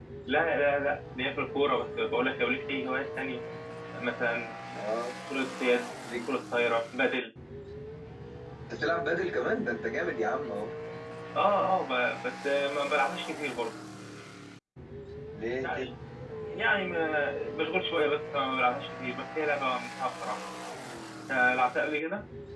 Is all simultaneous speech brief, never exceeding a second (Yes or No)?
Yes